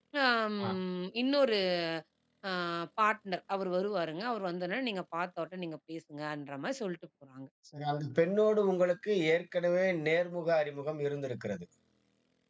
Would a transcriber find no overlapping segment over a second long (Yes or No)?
Yes